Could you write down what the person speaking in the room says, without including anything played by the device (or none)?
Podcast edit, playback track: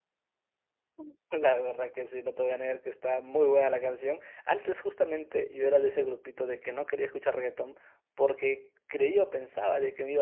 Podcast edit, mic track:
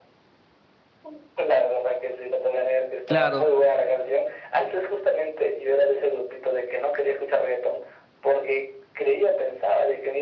Claro,